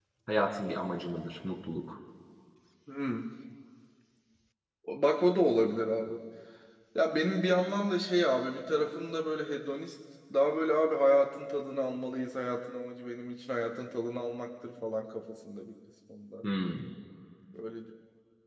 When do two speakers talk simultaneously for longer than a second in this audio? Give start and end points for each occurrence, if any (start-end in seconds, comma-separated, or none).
none